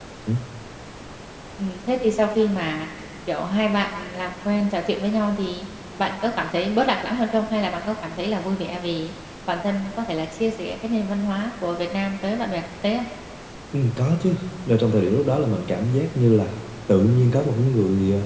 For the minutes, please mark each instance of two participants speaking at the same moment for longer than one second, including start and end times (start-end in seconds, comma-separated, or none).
none